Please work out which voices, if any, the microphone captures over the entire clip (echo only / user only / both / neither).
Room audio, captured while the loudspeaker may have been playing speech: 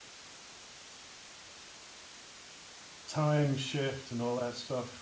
user only